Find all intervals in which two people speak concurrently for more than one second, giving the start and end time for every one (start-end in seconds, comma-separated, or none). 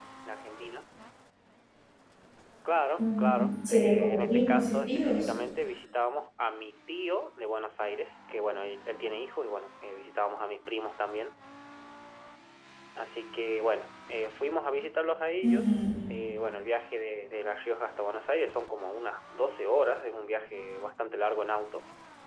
3.0-5.3